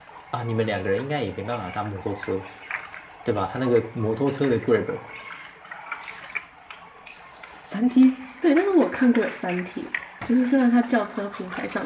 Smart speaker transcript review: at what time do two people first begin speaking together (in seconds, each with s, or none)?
none